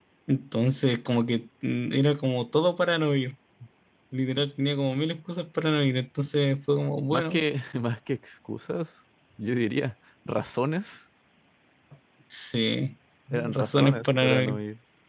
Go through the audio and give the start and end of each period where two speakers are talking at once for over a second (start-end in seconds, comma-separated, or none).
13.3-14.6